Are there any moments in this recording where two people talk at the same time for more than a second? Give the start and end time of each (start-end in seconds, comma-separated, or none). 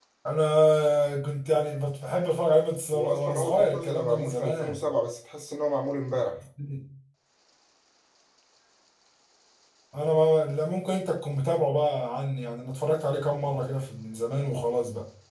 2.9-4.8